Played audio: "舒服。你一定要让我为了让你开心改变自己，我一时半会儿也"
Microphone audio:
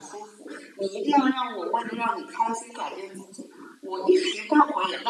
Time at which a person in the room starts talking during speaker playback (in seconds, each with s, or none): none